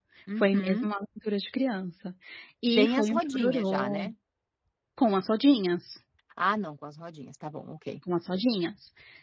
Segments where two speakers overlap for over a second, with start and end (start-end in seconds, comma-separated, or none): 2.8-4.1